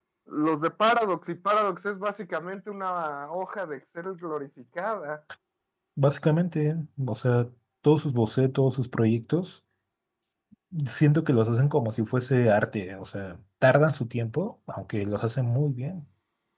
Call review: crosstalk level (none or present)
none